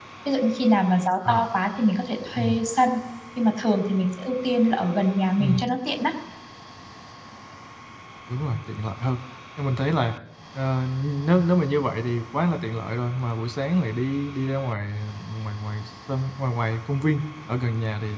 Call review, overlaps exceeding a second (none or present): none